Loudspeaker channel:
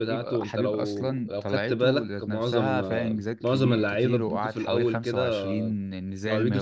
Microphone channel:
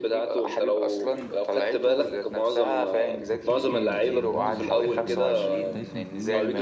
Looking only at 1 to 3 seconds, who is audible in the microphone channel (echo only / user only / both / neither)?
echo only